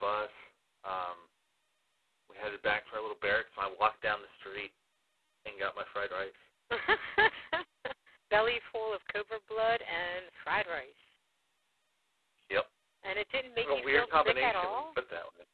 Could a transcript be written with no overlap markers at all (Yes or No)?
No